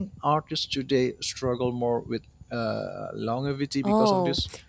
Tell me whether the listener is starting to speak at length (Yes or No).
Yes